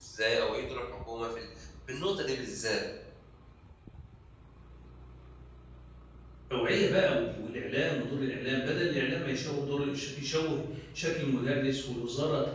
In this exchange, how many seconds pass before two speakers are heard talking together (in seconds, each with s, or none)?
none